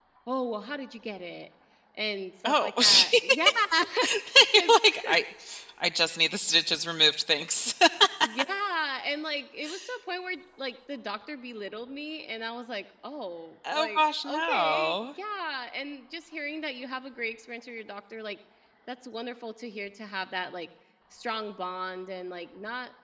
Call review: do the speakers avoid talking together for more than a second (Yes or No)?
No